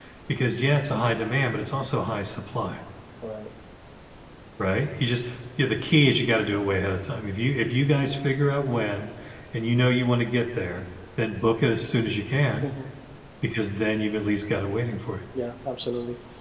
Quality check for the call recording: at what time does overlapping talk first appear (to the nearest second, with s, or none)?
none